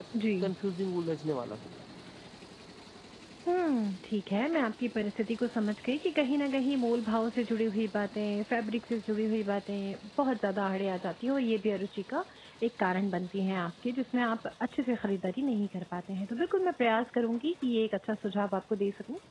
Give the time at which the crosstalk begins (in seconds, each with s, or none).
none